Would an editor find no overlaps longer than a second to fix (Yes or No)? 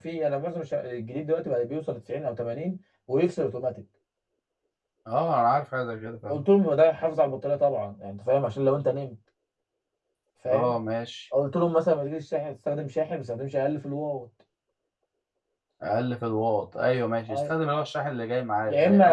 Yes